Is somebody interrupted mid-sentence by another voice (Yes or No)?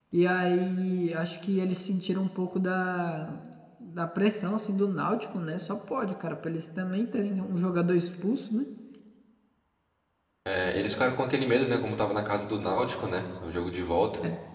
No